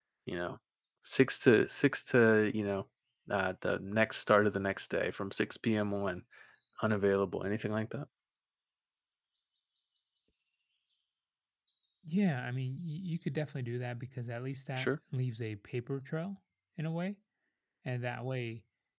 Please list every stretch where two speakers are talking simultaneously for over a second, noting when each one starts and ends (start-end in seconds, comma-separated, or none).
none